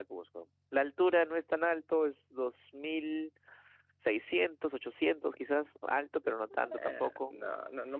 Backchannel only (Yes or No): No